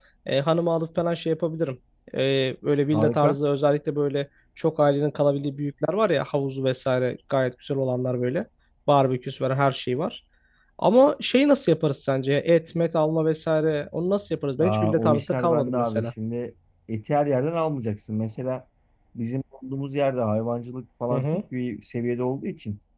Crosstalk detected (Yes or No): Yes